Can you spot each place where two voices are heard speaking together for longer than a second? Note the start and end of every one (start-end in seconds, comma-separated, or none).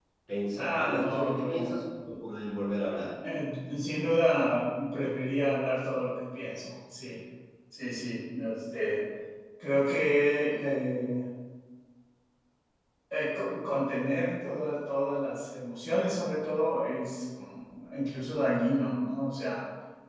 0.6-1.8